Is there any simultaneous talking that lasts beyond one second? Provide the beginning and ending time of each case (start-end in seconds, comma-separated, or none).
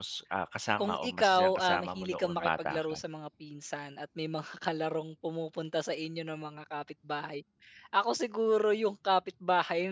0.8-3.0